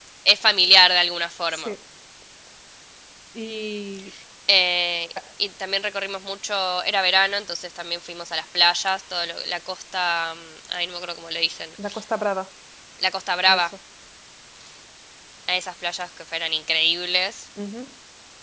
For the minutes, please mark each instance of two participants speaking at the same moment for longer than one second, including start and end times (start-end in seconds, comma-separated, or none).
none